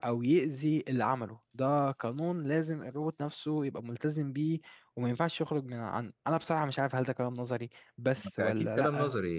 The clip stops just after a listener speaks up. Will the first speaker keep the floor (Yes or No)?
No